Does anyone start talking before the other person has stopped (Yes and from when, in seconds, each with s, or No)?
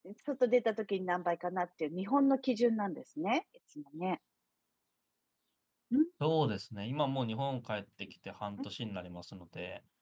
No